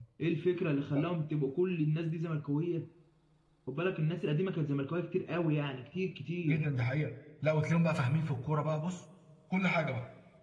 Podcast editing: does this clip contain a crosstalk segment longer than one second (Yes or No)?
No